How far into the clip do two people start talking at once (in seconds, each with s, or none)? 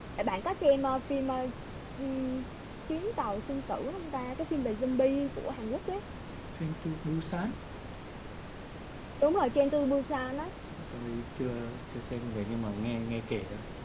none